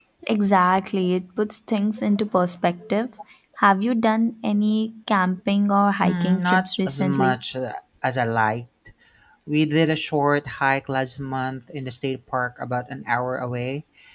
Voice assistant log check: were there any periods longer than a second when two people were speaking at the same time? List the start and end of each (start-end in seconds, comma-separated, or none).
6.0-7.4